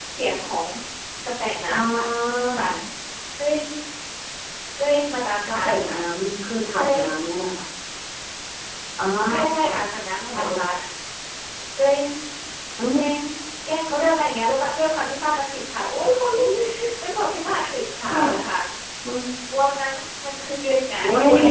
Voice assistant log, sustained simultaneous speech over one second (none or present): none